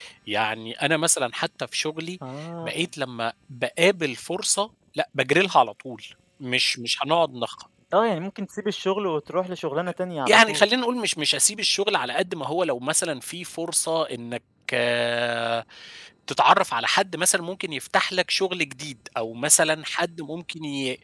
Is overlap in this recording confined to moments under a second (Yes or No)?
Yes